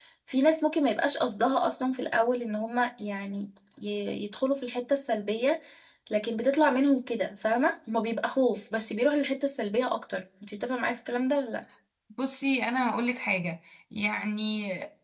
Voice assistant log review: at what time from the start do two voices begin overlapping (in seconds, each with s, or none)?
none